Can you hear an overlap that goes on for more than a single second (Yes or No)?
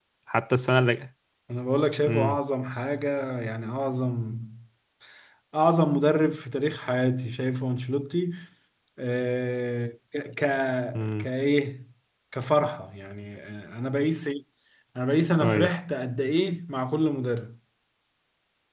No